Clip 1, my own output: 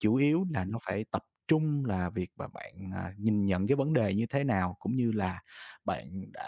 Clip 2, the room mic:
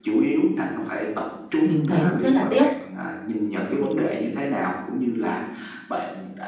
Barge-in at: 1.6 s

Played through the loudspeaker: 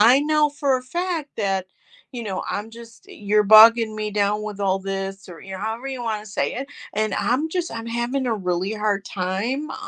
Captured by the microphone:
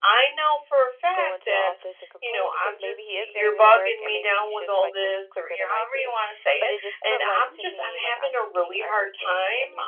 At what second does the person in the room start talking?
1.1 s

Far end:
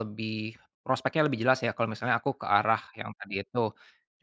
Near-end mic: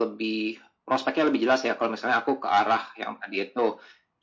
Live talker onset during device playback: none

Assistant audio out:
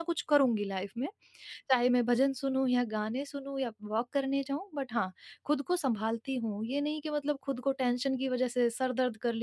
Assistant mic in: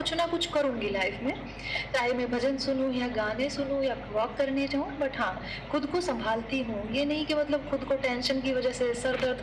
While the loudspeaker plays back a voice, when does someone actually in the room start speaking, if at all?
none

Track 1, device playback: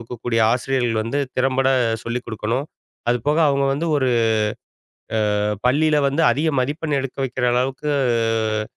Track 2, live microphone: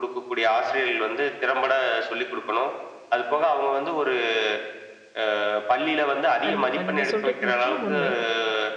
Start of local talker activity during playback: 6.5 s

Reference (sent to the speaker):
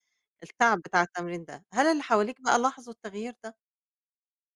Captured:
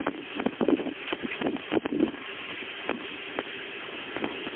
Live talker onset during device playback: none

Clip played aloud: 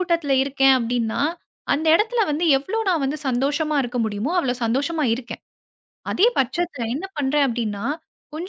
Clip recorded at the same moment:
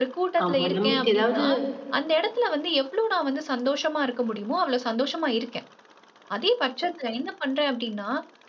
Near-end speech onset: 0.4 s

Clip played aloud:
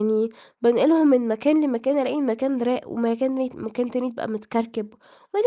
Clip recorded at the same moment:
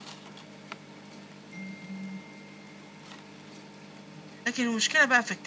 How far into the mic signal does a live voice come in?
4.5 s

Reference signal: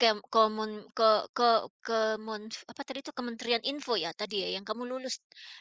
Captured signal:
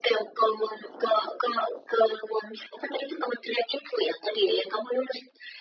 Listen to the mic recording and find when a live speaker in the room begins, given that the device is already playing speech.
none

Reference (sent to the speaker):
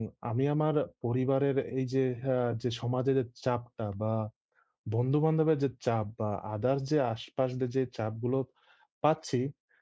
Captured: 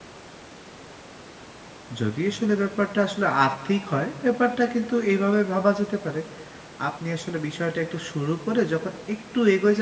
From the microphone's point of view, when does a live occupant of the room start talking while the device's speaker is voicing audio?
2.0 s

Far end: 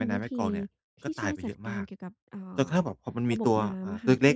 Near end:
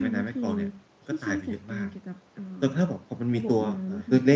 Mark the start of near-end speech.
none

